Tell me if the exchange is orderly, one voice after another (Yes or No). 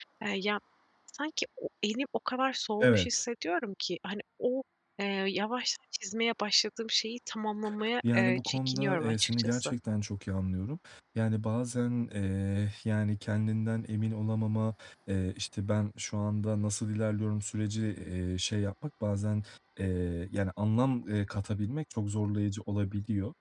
No